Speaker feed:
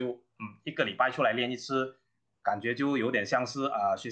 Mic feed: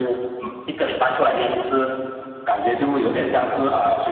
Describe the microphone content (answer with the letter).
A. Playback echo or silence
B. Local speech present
A